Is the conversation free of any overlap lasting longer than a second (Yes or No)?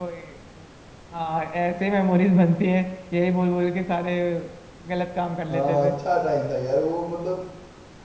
Yes